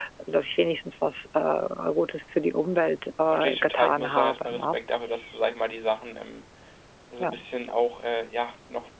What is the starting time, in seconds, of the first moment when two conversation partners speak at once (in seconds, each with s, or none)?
3.3 s